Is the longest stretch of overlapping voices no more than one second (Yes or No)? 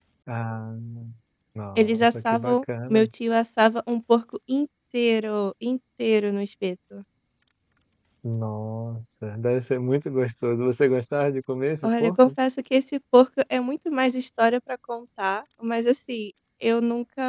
No